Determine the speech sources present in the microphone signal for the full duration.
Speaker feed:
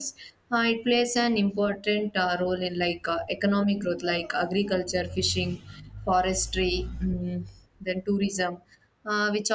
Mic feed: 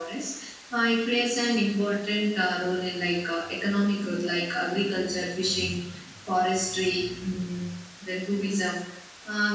echo only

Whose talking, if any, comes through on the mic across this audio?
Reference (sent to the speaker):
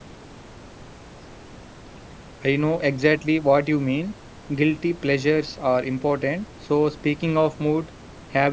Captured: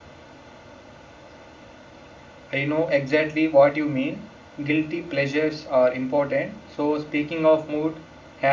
echo only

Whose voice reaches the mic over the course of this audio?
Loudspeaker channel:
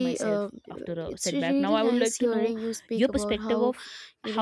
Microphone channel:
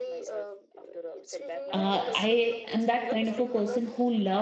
both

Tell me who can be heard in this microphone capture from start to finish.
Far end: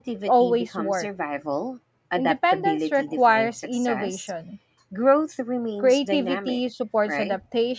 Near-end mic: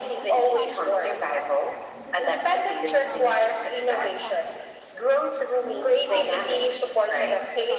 both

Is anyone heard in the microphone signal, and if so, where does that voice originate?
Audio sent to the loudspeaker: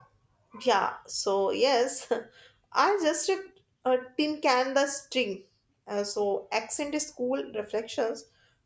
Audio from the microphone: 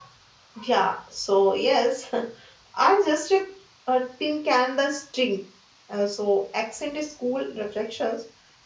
echo only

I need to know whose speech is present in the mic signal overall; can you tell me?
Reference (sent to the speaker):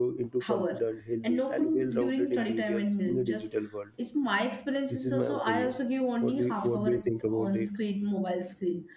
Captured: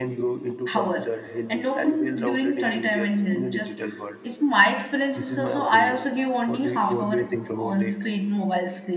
echo only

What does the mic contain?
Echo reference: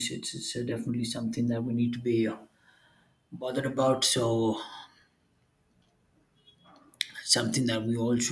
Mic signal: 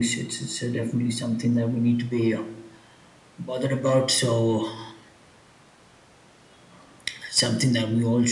echo only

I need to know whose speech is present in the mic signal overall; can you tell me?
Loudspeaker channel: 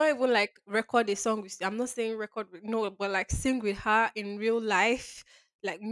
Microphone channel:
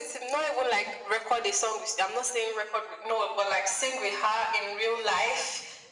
echo only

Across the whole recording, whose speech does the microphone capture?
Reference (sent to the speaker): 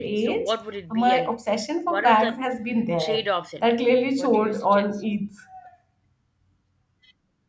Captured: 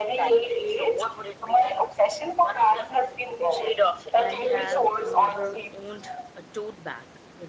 both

